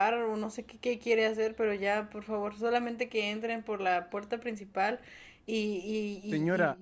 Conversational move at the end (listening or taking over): taking over